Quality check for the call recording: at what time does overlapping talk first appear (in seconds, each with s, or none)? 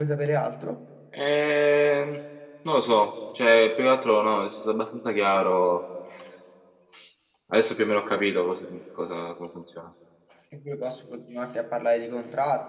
none